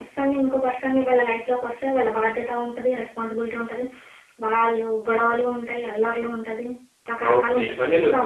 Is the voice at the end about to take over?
Yes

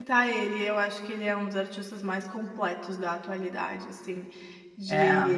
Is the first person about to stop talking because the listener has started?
No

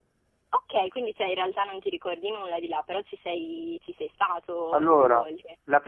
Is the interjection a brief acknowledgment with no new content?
No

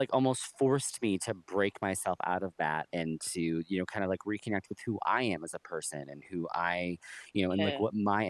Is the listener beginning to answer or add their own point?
No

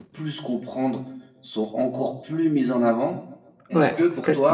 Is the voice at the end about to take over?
No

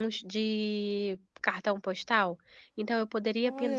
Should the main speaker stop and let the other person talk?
No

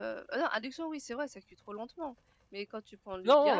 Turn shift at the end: No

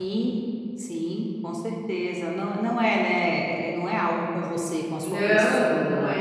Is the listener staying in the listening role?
No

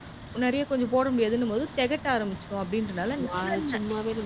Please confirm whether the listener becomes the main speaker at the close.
Yes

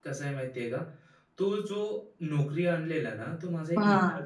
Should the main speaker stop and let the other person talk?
No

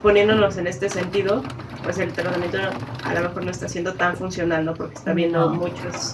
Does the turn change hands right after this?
No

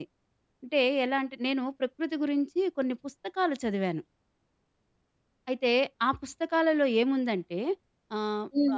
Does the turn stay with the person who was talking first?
No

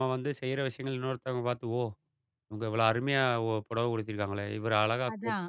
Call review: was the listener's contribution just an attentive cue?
No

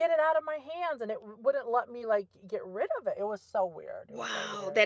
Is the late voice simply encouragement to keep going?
No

